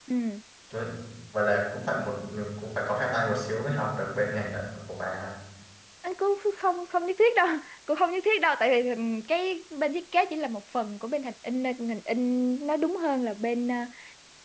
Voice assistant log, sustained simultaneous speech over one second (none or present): none